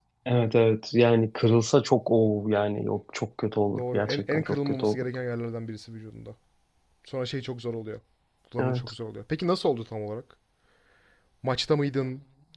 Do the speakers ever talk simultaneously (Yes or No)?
Yes